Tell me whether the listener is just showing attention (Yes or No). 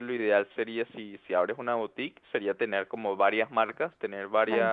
Yes